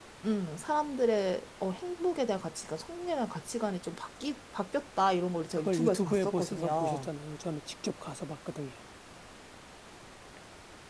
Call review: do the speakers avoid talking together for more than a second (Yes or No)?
No